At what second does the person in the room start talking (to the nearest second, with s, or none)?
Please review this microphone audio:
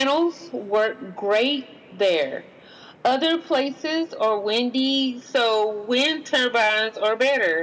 none